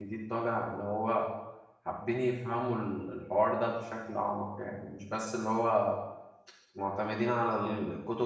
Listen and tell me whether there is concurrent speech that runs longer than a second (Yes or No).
No